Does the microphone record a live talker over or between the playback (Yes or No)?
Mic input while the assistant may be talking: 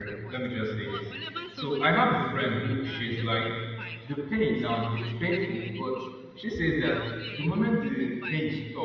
Yes